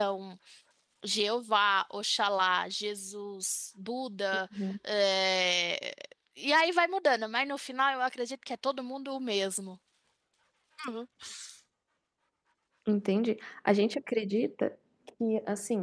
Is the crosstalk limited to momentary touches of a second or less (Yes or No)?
Yes